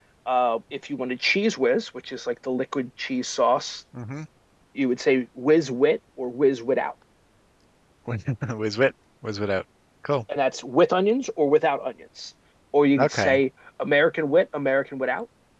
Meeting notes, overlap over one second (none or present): none